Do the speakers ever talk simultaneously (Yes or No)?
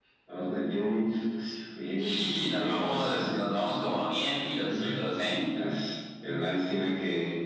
Yes